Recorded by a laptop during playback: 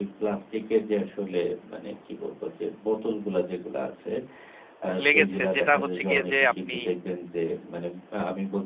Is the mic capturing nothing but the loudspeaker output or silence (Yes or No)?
No